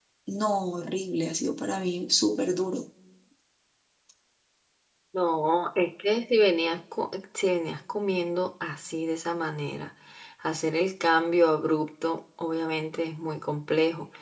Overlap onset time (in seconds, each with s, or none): none